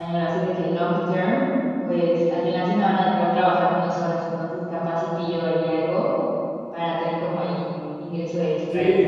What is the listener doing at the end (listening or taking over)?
taking over